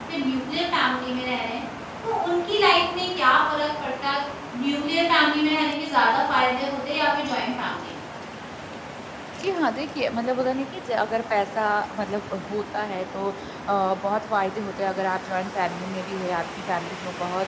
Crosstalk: none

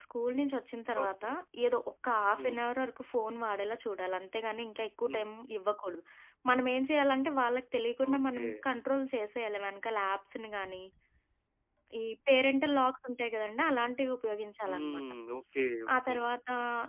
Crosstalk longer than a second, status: none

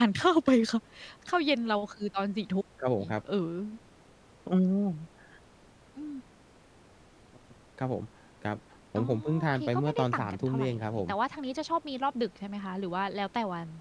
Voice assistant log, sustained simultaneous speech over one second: present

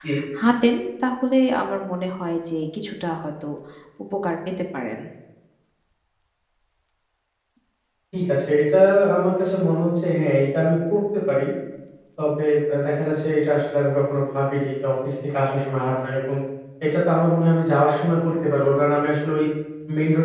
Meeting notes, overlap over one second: none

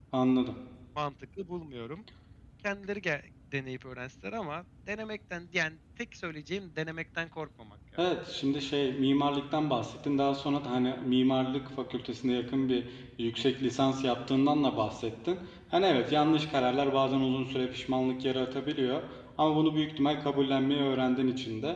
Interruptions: none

